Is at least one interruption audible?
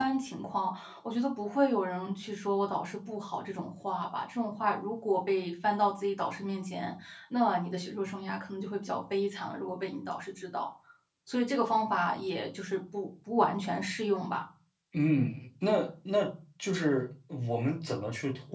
No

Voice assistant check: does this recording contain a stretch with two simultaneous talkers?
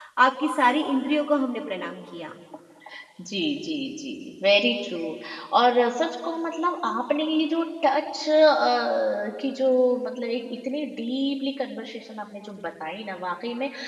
No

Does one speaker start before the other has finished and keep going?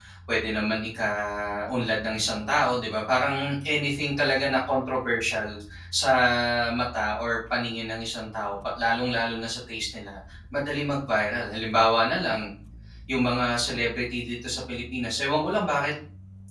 No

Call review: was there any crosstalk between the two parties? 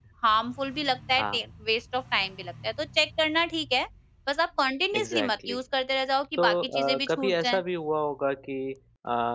Yes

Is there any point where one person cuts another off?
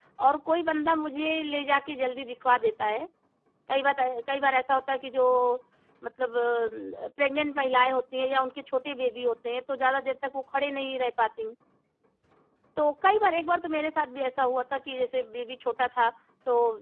No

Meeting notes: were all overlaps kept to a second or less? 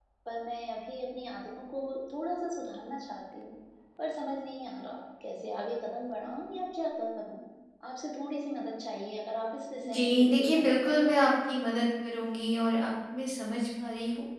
No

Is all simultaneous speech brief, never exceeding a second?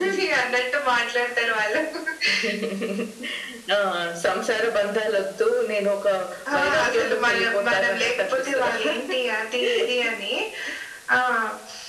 No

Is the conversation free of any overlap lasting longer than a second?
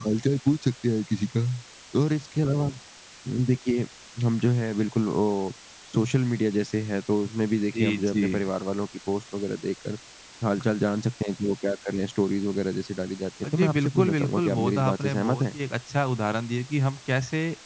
No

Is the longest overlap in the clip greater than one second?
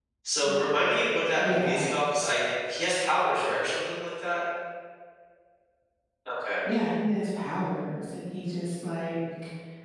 No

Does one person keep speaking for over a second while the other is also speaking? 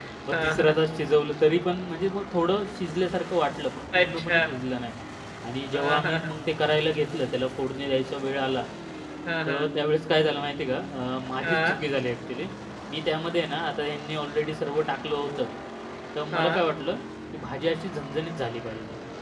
No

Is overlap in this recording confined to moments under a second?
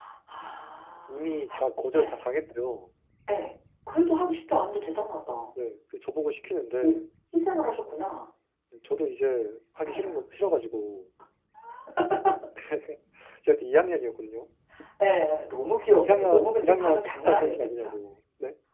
No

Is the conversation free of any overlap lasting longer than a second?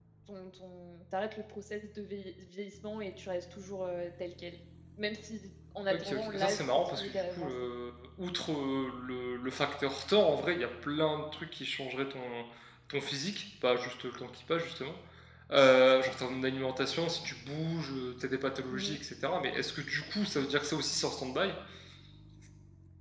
No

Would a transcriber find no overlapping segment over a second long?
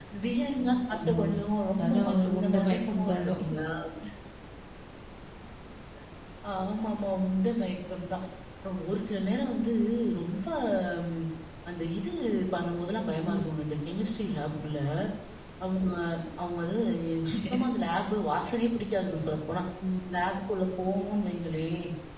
No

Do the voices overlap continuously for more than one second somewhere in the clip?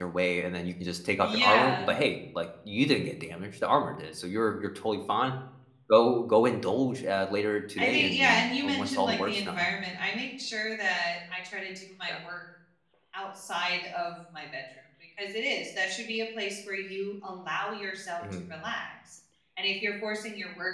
Yes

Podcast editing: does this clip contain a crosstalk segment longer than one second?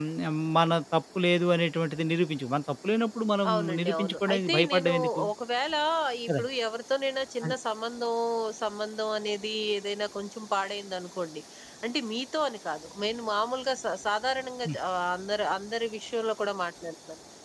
Yes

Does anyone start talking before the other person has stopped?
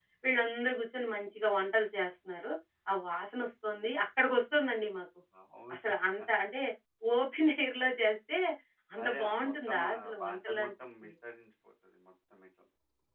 Yes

